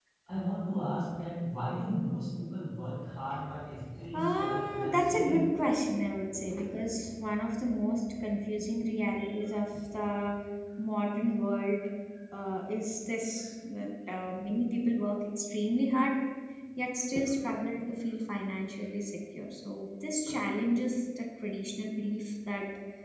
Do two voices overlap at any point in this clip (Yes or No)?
Yes